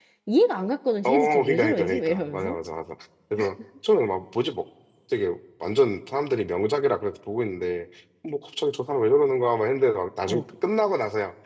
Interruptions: present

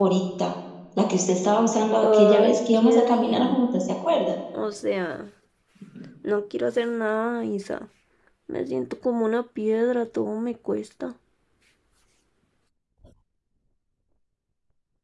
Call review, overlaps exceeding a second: present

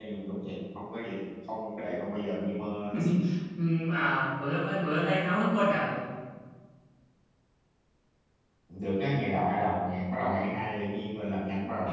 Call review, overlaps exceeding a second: none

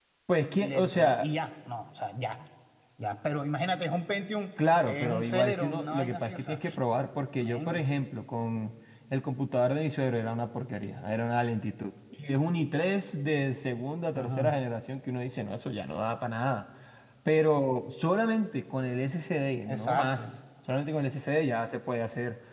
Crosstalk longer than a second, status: present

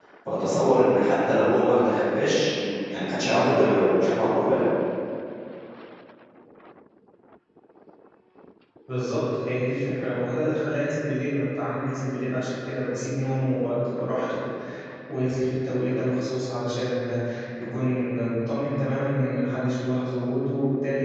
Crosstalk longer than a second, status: none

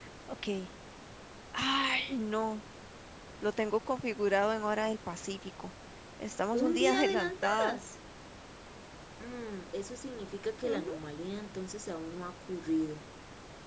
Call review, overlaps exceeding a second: present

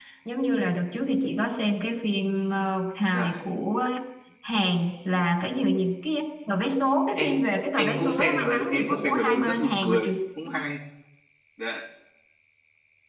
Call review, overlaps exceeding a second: present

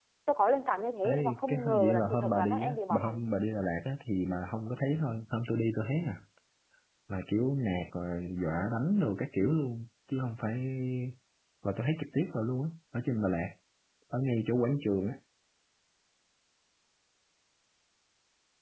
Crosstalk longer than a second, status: present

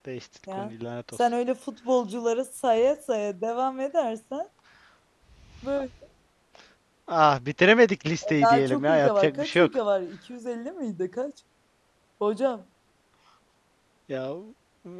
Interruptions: present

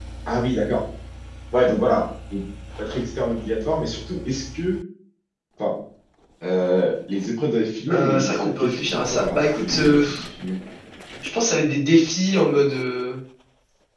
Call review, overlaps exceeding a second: present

